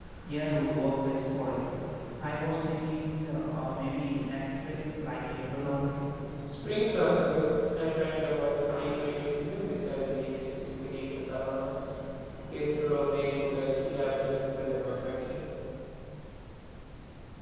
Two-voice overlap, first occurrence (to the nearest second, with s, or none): none